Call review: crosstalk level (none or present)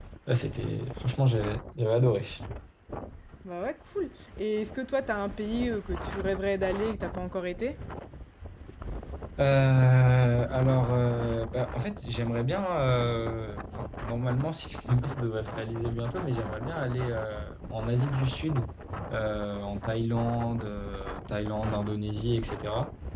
none